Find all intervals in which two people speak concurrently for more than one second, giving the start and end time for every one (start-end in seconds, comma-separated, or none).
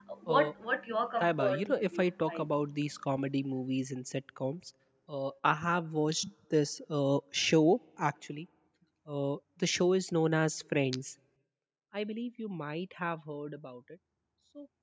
1.2-2.5